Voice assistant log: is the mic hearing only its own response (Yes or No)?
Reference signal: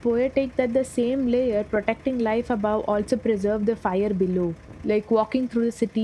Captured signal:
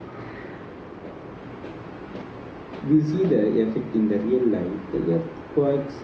No